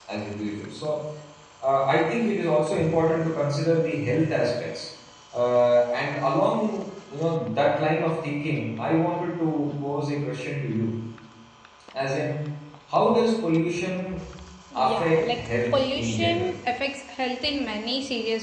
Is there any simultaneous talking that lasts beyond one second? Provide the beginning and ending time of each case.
14.7-16.5

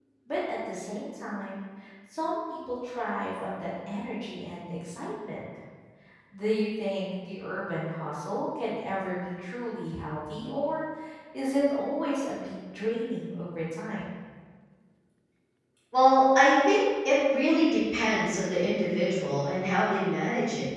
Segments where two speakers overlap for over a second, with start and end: none

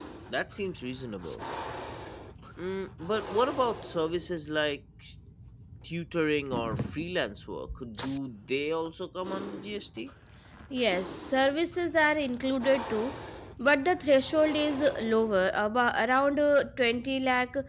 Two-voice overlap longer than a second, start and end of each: none

